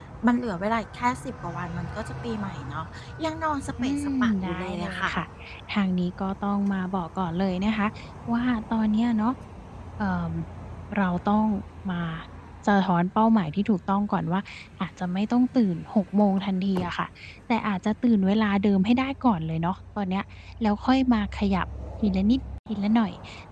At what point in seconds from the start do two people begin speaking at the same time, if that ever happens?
3.9 s

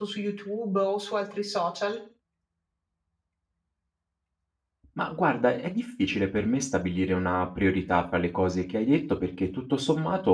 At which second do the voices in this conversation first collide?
none

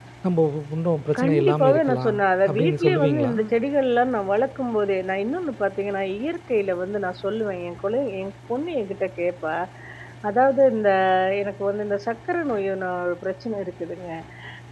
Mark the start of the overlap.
1.2 s

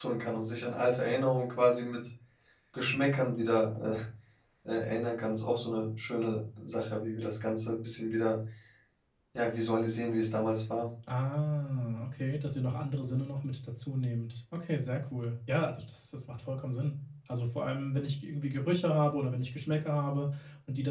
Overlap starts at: none

